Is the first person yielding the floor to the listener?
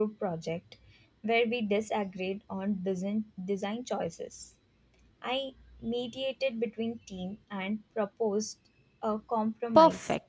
Yes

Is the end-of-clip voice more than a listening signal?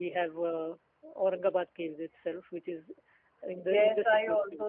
Yes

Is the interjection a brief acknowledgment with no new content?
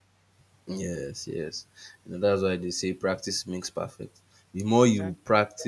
Yes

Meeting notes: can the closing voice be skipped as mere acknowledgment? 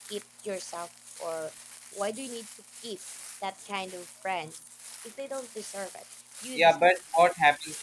No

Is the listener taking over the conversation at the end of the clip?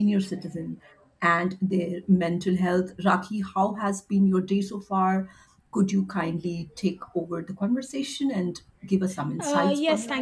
Yes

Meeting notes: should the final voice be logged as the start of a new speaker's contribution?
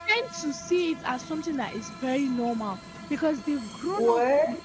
No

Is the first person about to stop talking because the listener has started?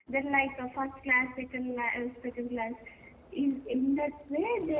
No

